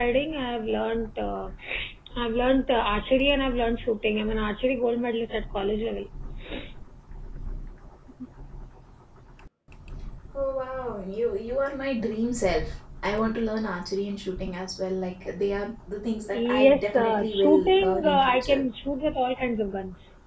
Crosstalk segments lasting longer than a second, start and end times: 16.3-18.6

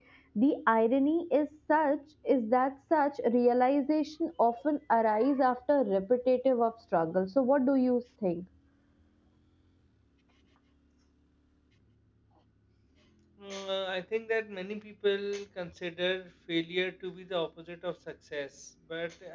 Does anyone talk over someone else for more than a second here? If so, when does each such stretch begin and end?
none

